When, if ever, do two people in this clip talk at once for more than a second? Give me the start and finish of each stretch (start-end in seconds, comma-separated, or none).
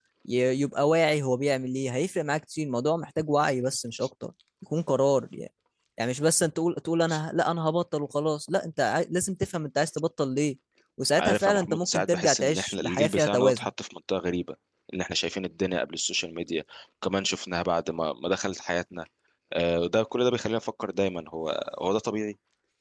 11.2-13.7